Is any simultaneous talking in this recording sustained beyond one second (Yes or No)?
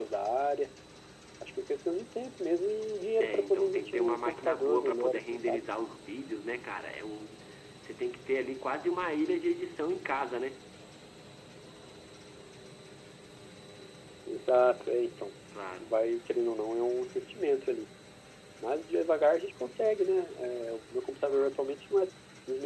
Yes